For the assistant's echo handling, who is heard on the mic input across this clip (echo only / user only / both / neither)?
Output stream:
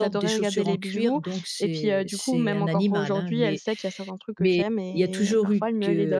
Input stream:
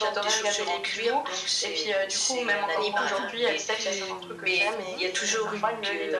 both